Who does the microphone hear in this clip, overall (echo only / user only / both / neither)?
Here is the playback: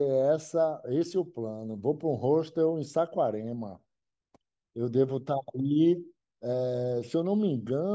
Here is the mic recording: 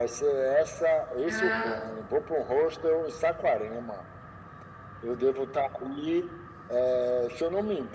both